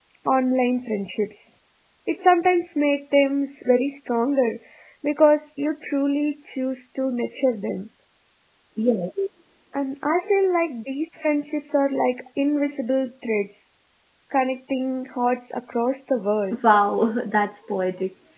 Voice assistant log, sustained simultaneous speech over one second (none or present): none